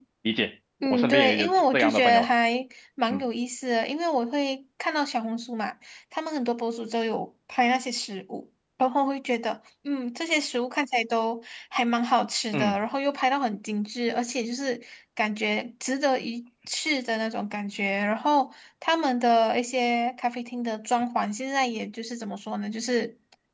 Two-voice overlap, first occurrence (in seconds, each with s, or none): 0.8 s